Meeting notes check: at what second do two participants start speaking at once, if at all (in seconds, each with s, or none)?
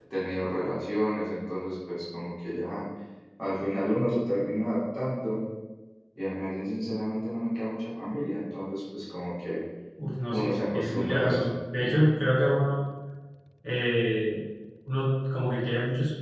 10.3 s